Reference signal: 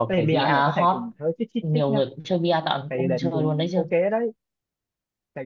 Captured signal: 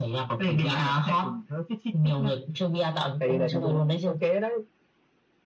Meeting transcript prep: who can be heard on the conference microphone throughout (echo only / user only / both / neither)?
echo only